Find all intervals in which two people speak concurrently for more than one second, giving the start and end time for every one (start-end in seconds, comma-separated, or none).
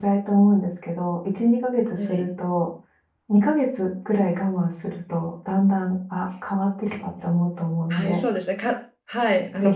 none